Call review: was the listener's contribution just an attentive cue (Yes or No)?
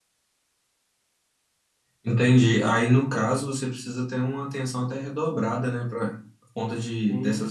Yes